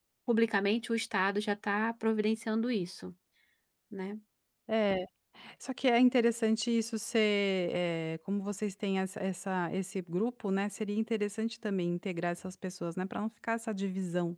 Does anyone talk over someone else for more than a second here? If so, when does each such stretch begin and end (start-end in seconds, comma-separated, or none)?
none